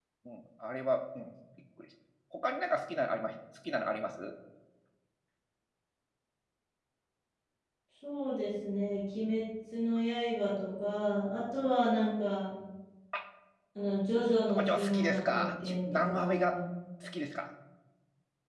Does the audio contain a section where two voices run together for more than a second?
Yes, from 14.5 s

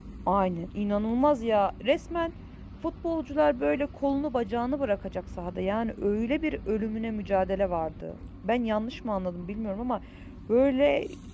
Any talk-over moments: No

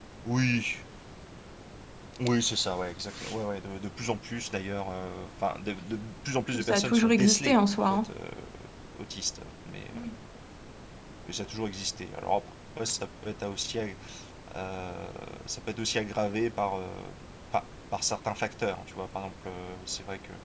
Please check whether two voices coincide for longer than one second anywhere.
Yes, from 6.5 s

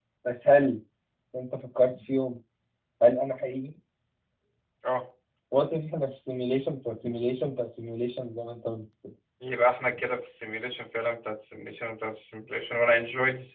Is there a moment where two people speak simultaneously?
No

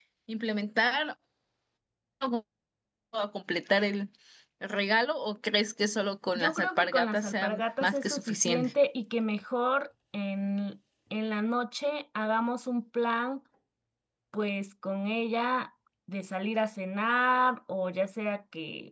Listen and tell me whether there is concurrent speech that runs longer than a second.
Yes, from 6.3 s

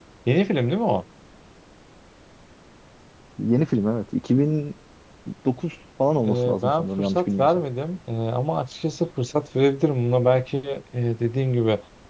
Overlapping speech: Yes, from 6.2 s

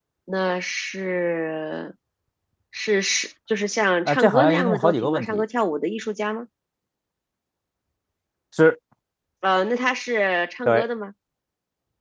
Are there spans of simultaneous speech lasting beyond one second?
Yes, from 4.0 s

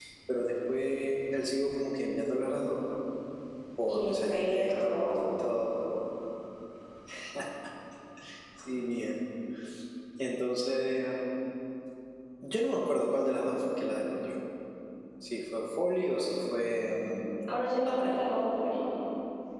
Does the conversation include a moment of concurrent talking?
Yes, from 3.9 s

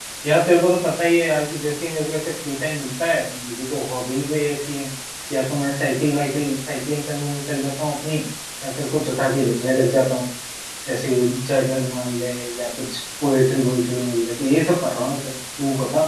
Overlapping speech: No

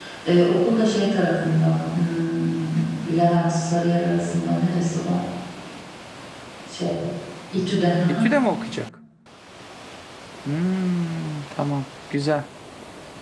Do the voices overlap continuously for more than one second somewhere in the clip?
No

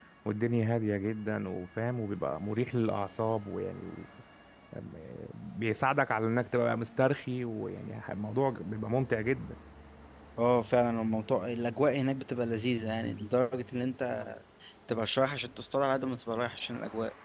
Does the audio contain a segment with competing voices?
No

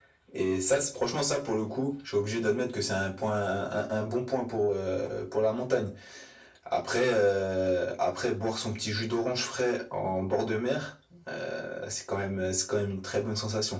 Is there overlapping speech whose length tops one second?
No

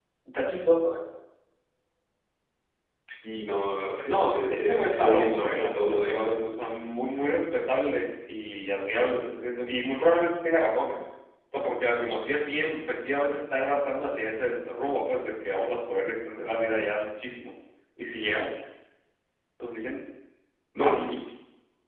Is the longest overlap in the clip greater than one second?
Yes, from 4.0 s

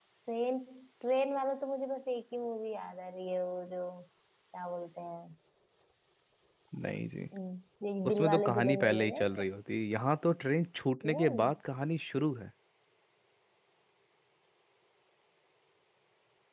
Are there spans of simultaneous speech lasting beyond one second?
Yes, from 8.1 s

